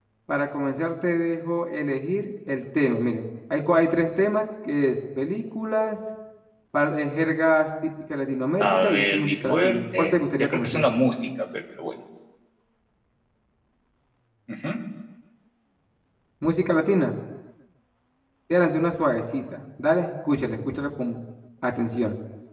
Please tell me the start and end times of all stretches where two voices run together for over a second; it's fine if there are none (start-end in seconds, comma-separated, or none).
8.6-10.8